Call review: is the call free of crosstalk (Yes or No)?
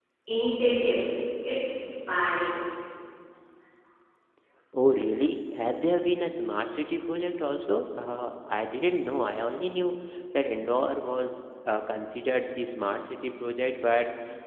Yes